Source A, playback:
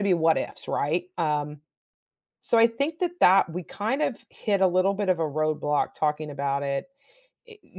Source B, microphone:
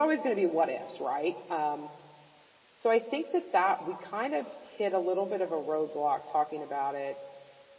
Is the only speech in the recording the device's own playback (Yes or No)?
Yes